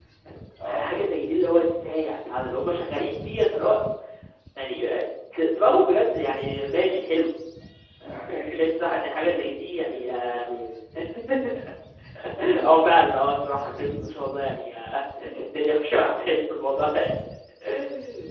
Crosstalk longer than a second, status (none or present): present